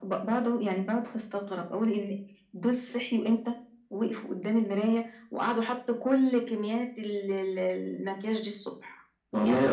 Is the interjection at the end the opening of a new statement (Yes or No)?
Yes